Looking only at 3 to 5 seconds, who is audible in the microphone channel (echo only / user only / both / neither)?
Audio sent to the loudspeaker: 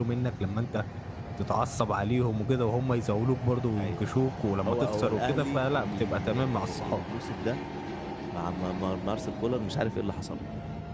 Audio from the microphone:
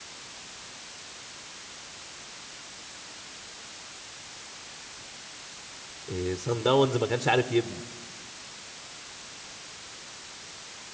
neither